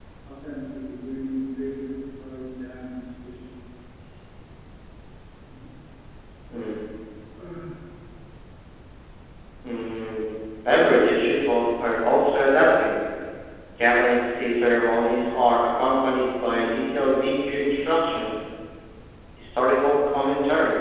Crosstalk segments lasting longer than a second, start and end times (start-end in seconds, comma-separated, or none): none